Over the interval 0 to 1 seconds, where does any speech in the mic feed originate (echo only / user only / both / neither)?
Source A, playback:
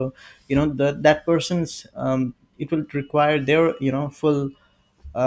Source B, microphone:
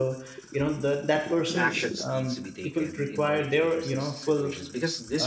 echo only